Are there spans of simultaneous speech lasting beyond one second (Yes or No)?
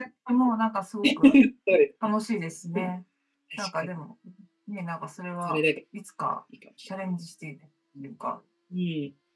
No